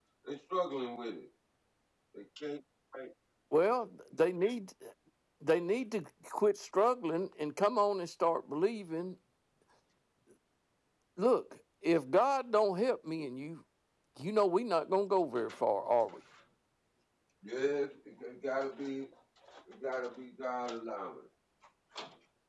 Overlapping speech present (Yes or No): No